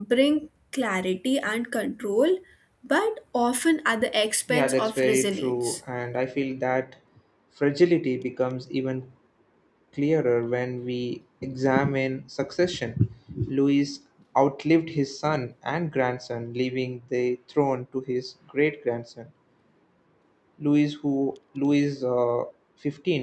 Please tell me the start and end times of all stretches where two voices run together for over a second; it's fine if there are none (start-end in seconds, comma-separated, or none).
4.5-5.8